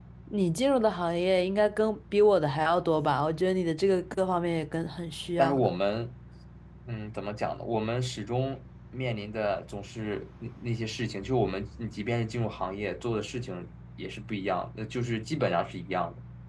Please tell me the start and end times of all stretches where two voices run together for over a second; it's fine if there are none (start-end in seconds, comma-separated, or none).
none